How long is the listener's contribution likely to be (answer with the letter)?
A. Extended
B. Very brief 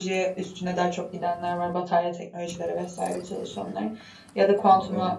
B